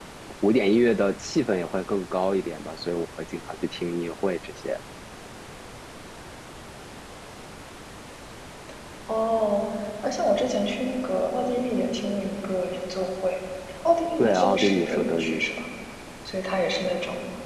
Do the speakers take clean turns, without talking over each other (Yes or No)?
No